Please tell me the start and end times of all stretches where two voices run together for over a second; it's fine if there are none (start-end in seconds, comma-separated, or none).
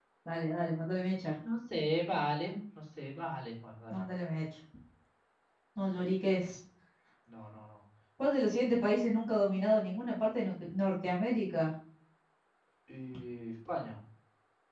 none